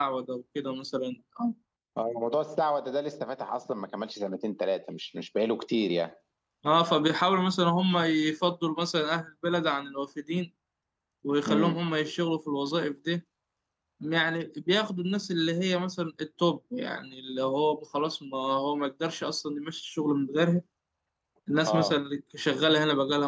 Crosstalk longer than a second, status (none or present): none